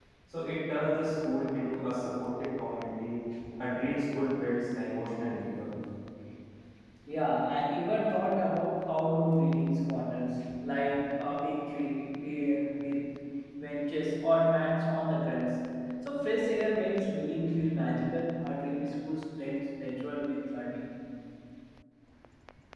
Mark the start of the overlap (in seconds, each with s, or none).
none